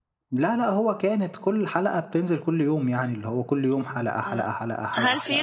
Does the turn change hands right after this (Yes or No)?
Yes